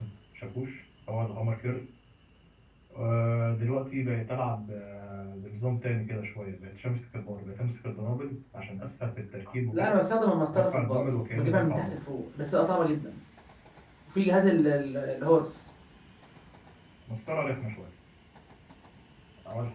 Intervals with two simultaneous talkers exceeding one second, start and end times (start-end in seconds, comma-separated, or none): 10.5-12.0